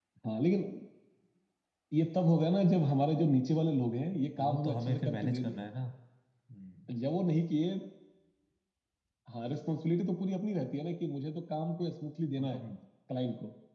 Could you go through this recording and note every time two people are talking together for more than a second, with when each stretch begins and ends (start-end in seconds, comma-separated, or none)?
4.4-5.6